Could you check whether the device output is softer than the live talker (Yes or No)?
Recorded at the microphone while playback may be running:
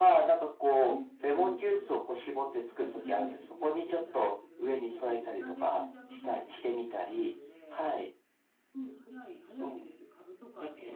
No